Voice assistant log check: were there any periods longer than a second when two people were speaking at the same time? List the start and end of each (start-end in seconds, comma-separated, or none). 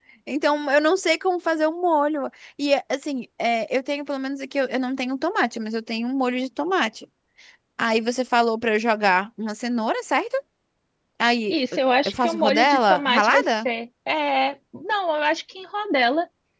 12.0-13.7